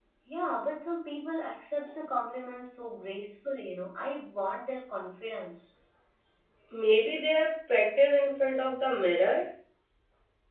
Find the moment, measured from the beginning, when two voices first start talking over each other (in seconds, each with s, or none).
none